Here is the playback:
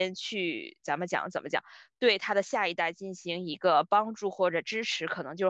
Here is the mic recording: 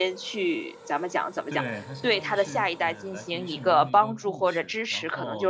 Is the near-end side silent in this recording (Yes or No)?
No